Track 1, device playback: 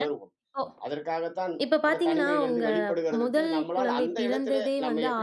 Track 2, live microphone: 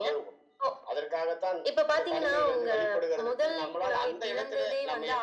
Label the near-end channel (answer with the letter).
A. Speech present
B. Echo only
B